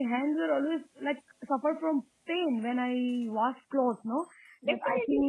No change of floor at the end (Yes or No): No